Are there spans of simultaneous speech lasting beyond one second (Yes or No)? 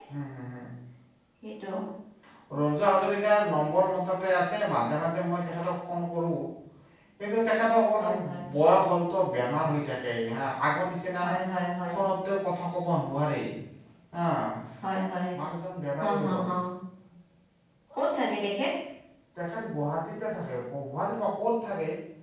No